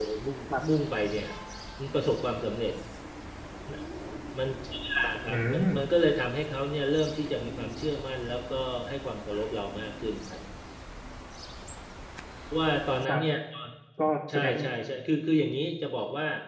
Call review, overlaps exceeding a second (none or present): none